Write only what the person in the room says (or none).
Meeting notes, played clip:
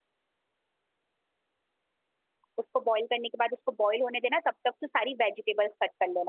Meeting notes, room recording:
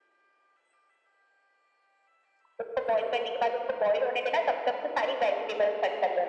none